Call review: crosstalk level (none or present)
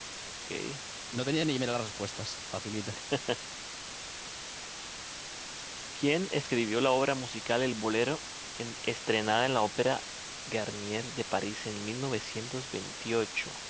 none